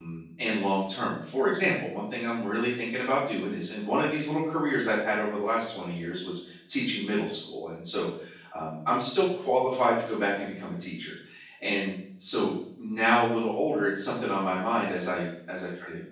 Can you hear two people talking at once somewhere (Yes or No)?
No